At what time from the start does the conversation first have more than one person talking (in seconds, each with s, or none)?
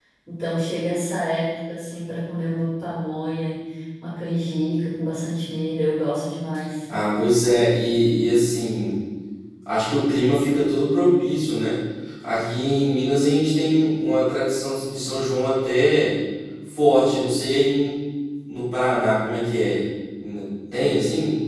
none